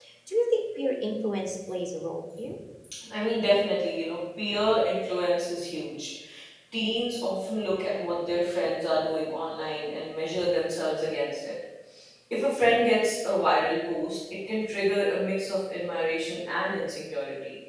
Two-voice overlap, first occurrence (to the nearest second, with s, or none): none